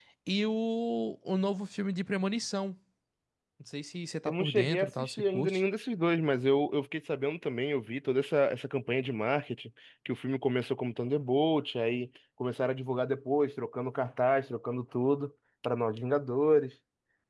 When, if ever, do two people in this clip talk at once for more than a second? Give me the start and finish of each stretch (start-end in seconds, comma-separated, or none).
4.3-5.6